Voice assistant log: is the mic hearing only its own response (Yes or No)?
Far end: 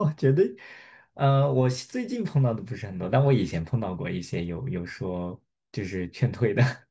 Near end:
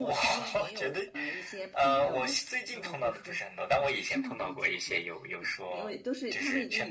No